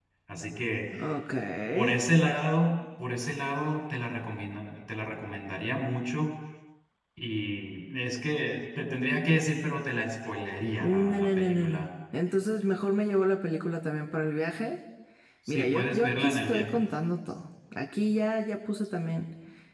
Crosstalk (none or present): present